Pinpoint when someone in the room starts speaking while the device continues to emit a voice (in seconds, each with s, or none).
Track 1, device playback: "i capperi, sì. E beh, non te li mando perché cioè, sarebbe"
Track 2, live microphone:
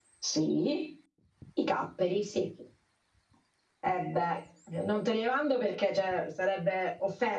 none